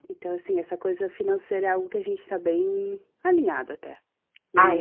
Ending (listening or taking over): taking over